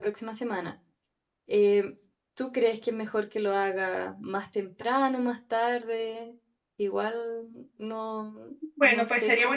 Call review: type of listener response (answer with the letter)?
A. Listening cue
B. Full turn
B